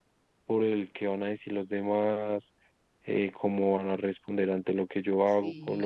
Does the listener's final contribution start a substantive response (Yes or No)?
Yes